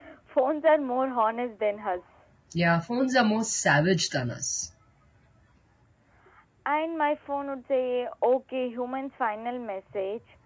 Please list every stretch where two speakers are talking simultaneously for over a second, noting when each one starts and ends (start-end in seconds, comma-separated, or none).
none